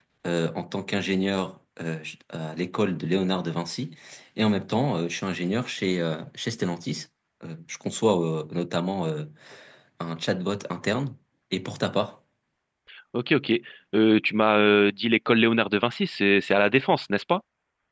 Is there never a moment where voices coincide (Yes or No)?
Yes